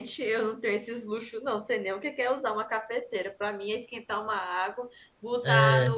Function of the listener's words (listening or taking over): listening